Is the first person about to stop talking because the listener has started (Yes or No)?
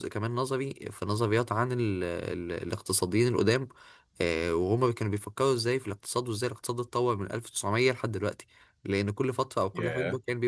No